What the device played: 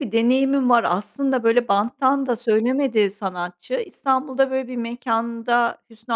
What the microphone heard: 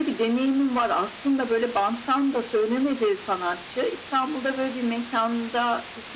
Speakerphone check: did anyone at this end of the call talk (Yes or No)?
No